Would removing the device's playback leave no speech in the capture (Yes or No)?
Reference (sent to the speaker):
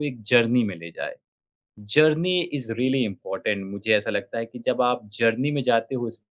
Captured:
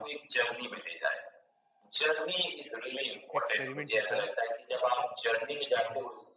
No